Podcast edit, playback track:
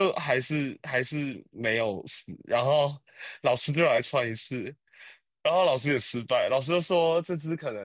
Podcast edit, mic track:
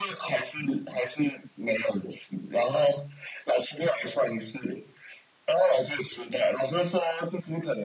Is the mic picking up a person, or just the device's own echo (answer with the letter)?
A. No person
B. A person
A